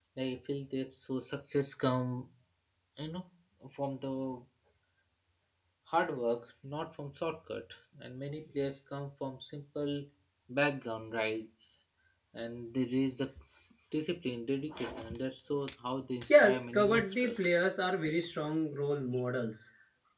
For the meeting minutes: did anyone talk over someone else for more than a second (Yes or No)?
Yes